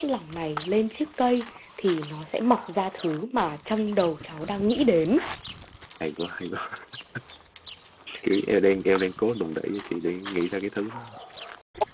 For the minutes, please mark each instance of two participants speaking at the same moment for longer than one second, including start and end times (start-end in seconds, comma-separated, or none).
none